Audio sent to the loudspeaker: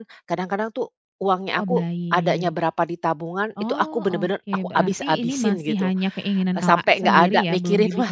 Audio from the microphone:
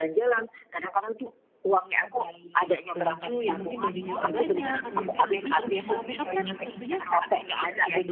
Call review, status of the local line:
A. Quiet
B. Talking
B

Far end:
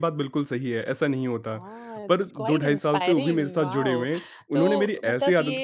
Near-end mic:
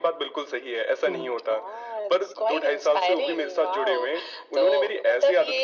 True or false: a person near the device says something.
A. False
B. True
B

